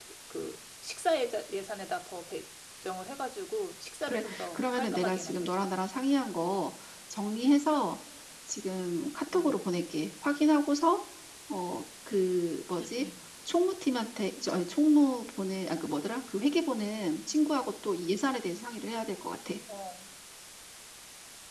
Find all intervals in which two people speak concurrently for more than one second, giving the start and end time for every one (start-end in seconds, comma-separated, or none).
4.1-5.5